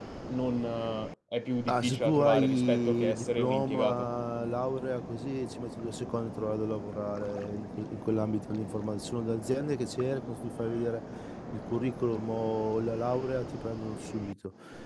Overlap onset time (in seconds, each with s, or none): 1.7 s